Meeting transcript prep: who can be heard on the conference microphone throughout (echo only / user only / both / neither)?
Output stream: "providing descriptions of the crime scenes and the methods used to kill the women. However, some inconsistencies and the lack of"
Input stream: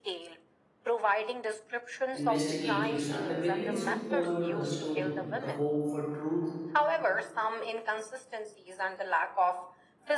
both